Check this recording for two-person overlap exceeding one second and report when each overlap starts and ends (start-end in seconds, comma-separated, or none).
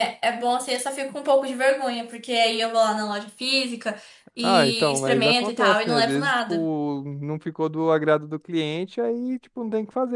4.4-6.7